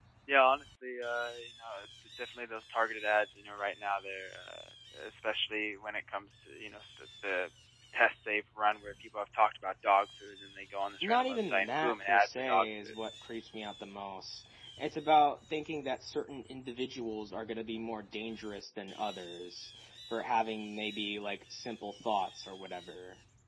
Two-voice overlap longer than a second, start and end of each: 11.0-12.9

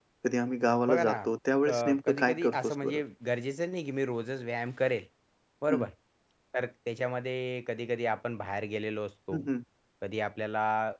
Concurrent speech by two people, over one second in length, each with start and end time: 1.7-3.0

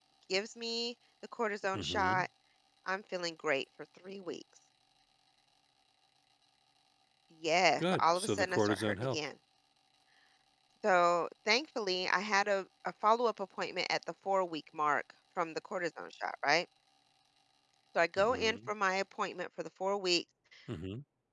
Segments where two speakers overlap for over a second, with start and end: 7.8-9.2

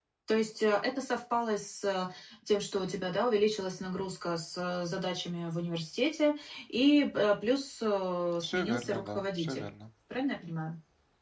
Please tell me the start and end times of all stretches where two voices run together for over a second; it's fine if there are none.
8.4-9.6

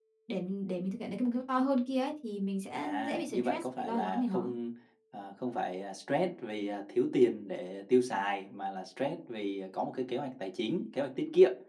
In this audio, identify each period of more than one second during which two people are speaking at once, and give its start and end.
2.8-4.5

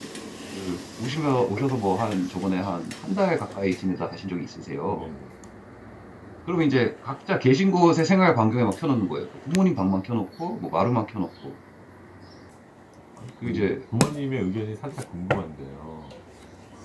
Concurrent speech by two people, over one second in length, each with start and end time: none

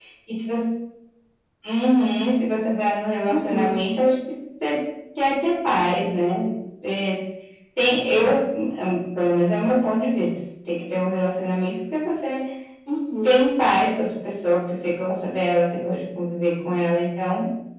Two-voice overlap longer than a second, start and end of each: none

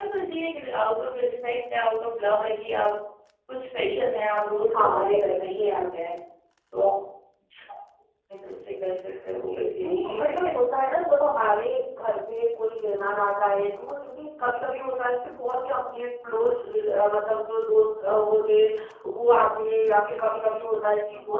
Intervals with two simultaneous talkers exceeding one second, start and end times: 9.3-10.5

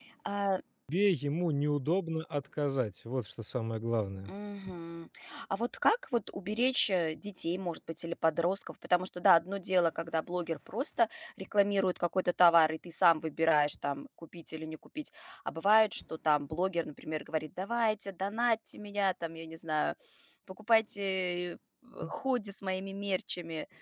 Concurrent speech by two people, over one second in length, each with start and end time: none

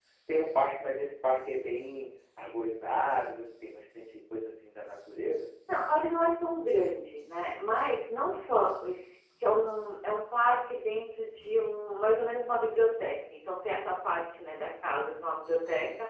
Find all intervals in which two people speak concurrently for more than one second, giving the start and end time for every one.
none

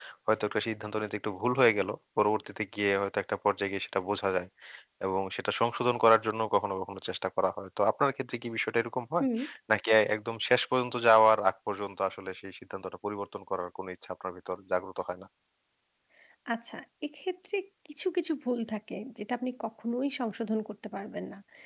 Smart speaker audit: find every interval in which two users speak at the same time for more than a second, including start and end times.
none

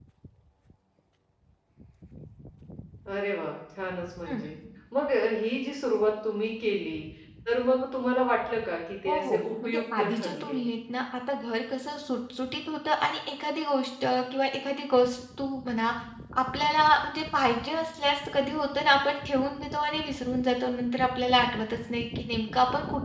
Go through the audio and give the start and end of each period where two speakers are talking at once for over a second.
9.1-10.6

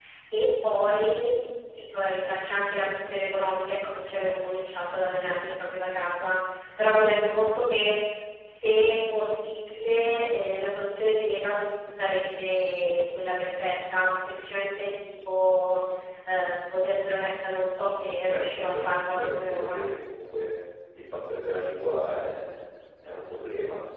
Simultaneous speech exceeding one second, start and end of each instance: 18.1-19.7

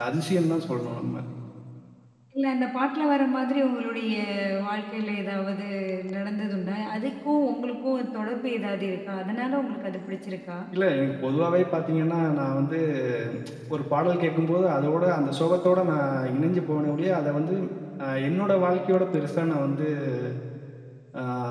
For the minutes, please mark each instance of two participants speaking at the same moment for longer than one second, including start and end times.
none

